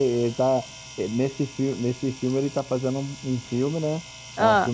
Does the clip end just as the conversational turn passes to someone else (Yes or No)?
No